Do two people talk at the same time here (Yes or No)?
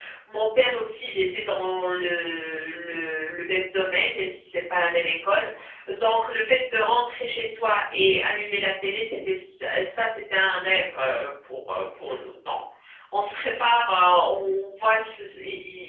No